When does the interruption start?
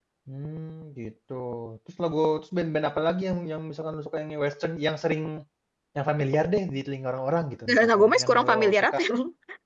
7.7 s

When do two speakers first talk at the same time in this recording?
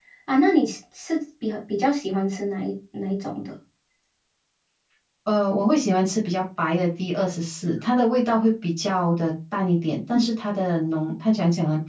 none

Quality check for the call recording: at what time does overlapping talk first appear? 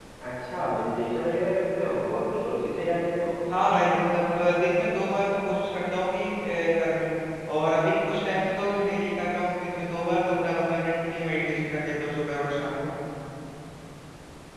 none

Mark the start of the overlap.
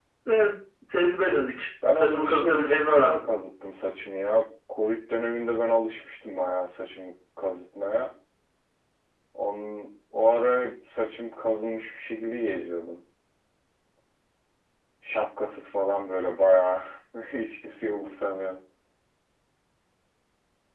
1.8 s

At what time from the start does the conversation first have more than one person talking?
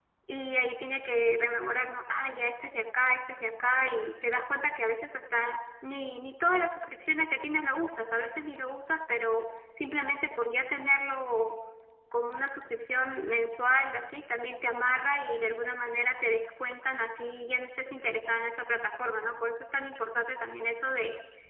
none

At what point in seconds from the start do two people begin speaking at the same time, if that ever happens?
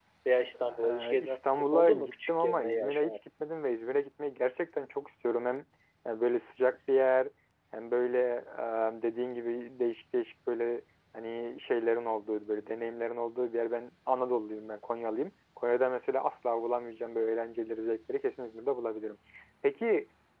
0.8 s

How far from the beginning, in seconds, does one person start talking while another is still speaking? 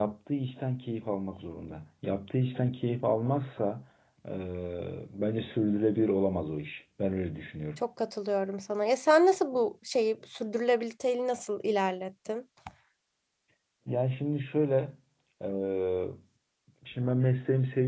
none

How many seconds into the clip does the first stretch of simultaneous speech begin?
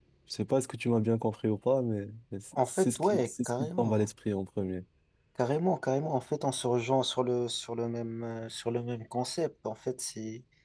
2.5 s

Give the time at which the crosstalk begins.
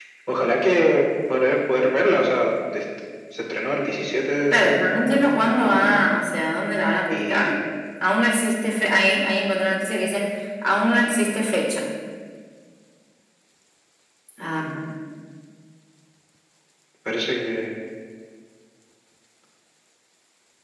4.5 s

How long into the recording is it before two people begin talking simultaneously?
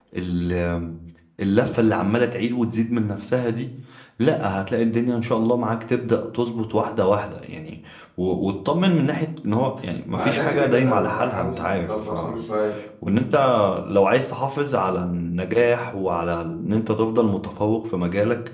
10.1 s

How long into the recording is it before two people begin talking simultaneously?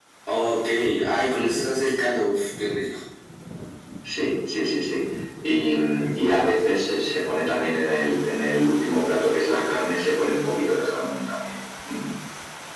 none

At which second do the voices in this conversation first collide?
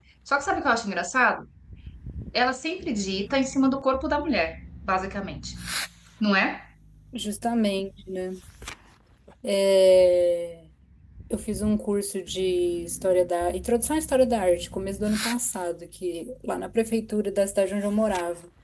none

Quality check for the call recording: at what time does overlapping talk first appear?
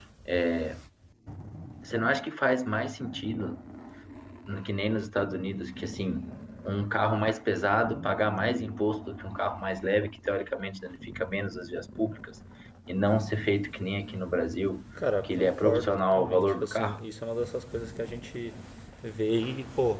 15.2 s

